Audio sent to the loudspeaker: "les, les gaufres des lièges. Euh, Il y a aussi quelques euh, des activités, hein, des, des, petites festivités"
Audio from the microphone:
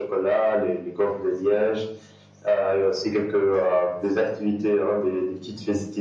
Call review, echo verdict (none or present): present